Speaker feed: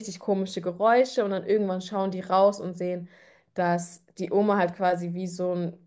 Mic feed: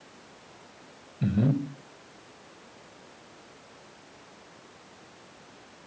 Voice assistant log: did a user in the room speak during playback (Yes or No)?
Yes